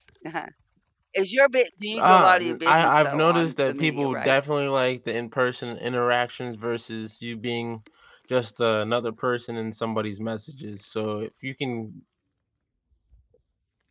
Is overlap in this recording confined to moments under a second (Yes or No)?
No